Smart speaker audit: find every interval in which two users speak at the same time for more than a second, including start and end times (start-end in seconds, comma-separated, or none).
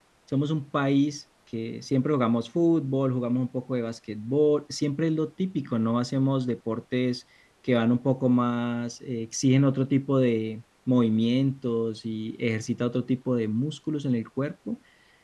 none